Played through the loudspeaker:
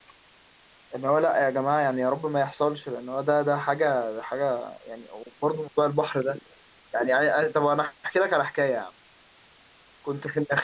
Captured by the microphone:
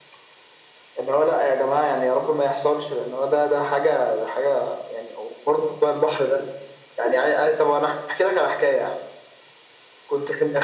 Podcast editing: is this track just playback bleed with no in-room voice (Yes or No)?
Yes